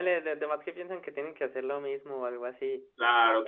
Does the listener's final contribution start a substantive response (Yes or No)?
Yes